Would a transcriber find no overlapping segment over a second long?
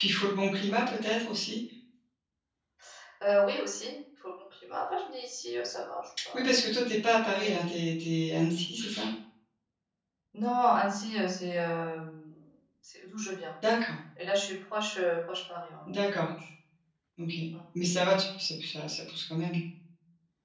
Yes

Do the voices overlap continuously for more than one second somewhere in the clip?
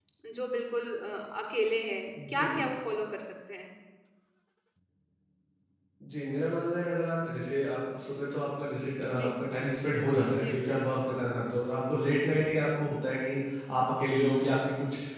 No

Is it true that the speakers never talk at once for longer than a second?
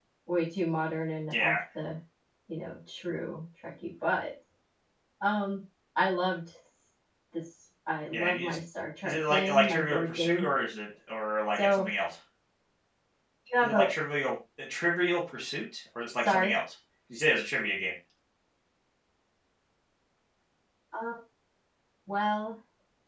No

